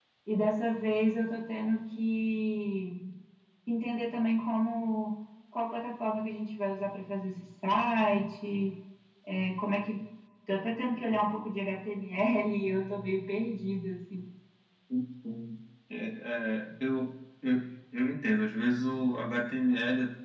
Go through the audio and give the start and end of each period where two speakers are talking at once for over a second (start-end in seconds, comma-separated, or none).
none